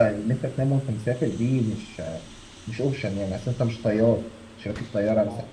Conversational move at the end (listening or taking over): listening